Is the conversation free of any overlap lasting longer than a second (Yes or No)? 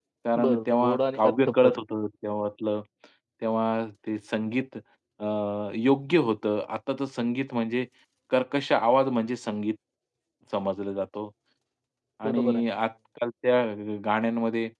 No